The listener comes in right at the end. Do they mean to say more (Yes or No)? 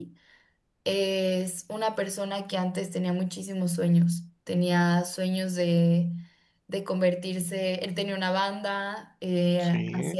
No